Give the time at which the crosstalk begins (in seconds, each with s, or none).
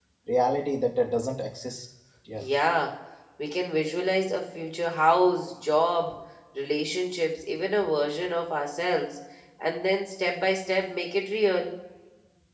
none